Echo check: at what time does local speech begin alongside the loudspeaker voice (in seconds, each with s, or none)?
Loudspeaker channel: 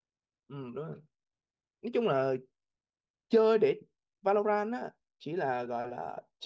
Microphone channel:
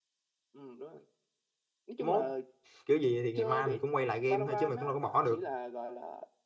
2.0 s